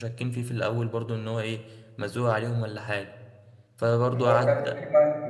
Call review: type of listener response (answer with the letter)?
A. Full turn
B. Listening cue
A